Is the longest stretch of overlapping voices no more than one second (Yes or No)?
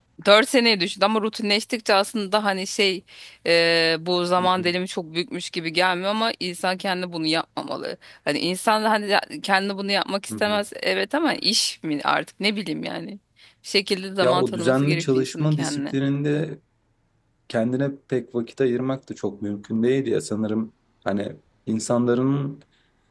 No